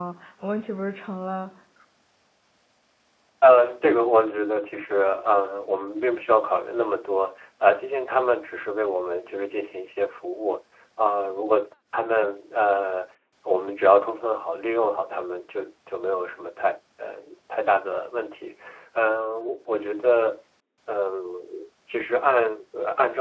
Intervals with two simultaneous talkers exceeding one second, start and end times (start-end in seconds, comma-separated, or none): none